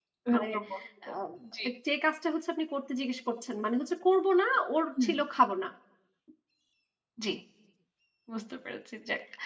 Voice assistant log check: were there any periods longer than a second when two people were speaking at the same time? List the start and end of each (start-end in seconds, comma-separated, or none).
none